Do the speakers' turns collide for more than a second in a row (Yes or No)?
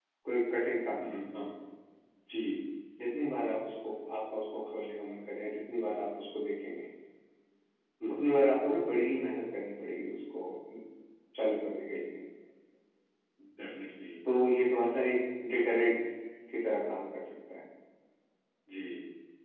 No